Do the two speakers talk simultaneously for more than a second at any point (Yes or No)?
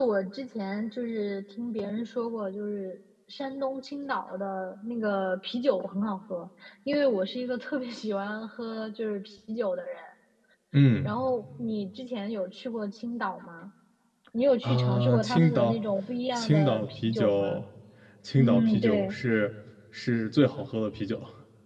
Yes